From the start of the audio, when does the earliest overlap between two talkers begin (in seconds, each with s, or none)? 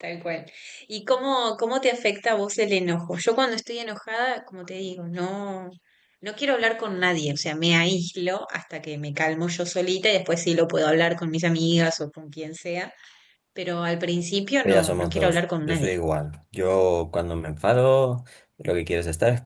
14.6 s